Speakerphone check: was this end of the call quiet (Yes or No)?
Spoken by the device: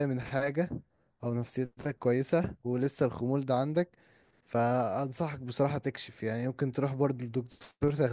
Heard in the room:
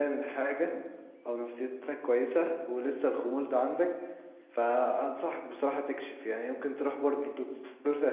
Yes